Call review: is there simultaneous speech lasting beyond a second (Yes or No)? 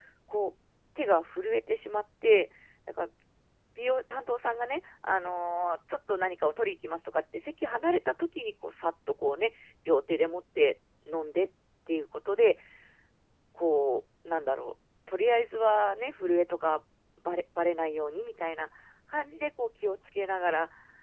No